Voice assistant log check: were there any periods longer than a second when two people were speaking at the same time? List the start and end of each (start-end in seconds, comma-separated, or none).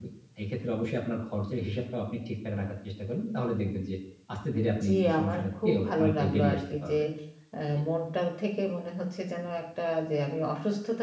4.8-6.9